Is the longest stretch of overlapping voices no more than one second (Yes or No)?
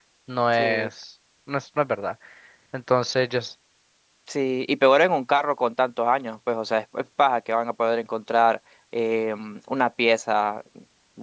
Yes